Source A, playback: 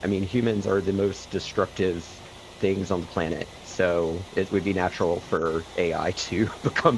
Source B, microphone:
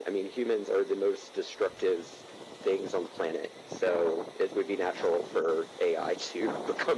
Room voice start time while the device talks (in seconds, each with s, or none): none